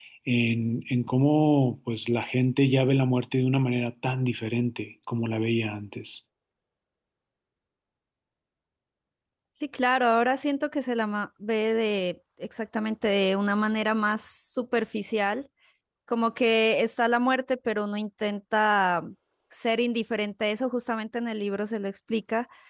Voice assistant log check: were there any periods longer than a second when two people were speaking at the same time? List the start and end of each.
none

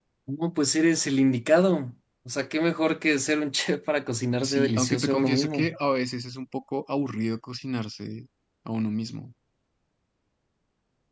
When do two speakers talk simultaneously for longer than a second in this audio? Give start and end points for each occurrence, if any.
4.4-5.7

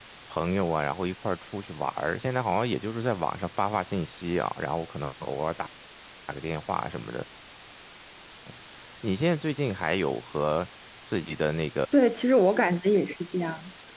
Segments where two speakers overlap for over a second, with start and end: none

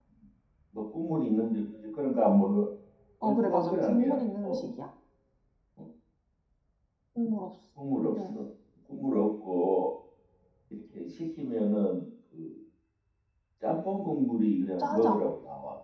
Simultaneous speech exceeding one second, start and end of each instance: 3.2-4.6

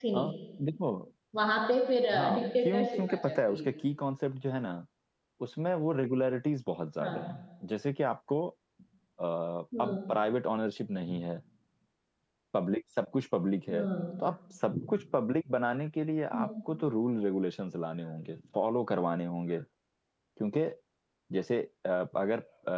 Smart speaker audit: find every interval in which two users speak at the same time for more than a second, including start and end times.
2.1-3.7

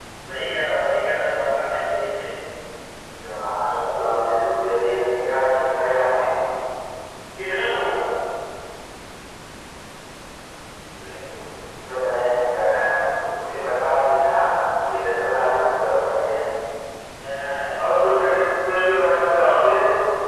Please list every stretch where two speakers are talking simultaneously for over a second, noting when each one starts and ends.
none

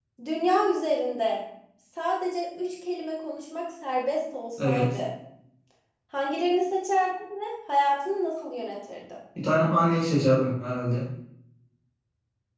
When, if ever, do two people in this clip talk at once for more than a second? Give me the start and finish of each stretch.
none

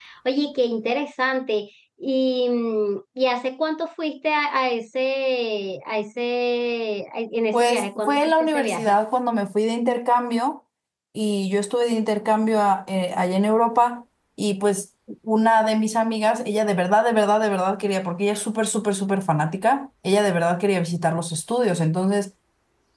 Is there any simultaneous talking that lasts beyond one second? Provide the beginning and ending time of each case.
7.5-9.0

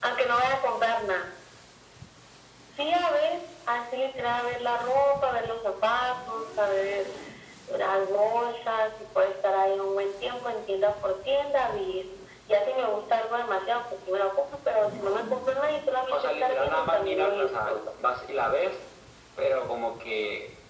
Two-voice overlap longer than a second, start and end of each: 16.1-17.8

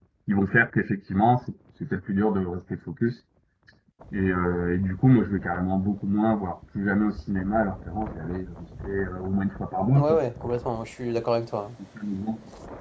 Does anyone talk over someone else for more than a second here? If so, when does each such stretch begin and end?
none

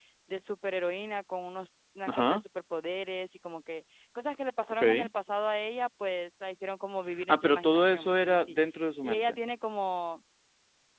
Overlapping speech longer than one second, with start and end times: 7.3-8.6

